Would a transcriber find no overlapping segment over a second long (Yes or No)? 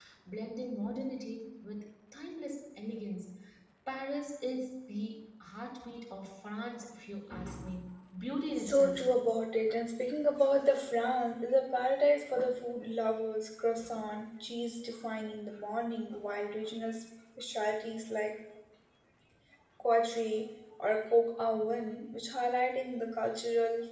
Yes